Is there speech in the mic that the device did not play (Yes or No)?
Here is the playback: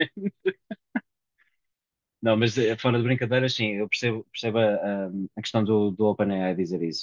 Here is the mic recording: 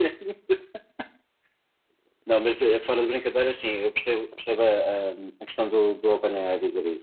No